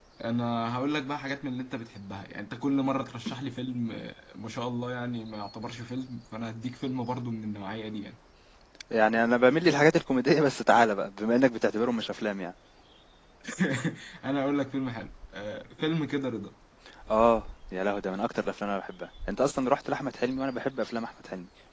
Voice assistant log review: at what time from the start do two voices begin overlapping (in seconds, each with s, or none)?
none